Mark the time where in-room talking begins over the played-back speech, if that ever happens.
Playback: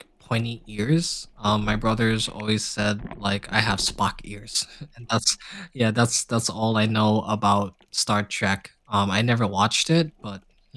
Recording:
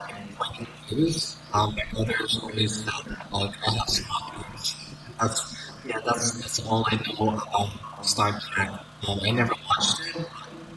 none

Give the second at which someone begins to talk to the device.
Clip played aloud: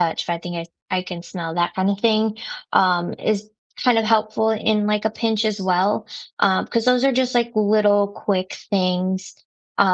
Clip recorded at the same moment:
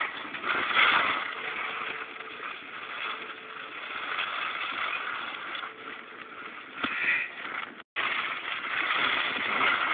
none

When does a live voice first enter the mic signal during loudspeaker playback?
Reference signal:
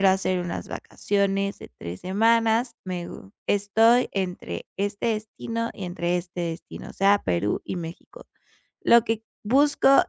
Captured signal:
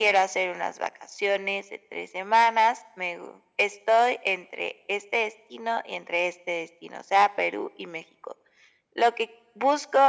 none

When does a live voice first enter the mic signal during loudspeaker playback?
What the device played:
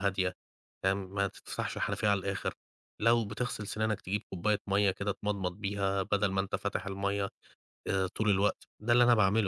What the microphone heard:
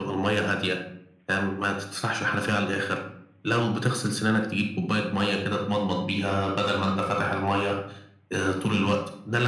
none

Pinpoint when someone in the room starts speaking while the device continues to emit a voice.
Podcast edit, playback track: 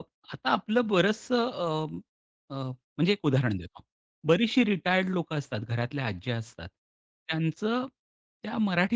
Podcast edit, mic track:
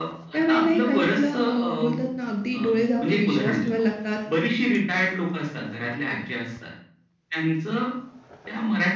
0.3 s

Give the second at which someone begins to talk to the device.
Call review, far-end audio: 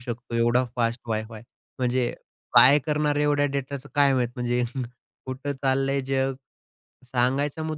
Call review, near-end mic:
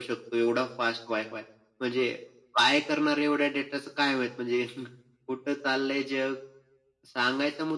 none

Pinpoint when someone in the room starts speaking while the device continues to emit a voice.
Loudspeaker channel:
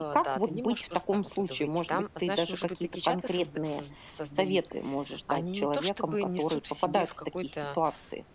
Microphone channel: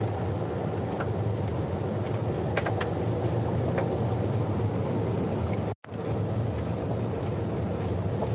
none

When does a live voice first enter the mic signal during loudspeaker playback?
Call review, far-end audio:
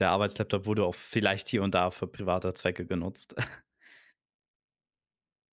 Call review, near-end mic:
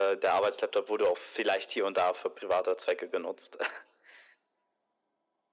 none

